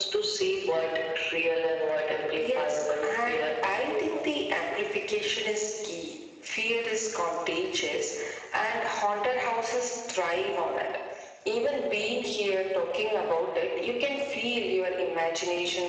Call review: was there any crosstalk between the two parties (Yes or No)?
Yes